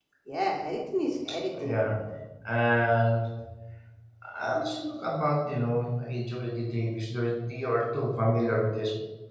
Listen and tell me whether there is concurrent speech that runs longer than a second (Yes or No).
No